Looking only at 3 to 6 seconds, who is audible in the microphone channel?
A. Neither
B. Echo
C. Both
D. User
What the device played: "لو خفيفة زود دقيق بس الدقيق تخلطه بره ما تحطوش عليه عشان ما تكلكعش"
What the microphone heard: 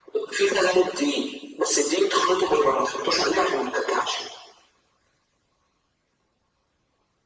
B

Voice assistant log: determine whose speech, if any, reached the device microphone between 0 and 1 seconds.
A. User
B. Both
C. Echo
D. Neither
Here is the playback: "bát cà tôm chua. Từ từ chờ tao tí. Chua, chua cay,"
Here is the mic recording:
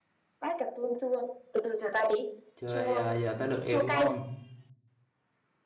C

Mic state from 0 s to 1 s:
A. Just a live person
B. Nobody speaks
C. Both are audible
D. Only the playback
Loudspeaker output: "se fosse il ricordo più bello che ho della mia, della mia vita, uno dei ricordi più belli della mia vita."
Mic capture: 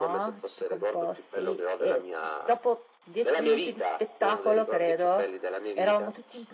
C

